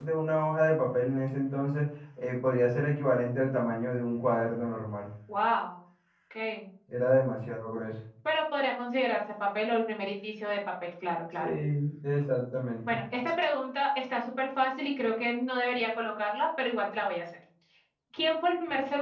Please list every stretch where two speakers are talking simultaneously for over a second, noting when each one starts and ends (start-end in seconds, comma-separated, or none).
none